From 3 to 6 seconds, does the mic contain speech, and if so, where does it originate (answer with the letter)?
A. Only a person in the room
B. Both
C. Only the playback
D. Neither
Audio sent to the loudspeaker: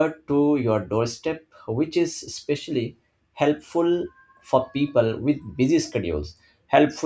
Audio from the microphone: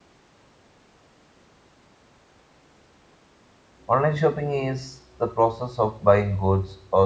A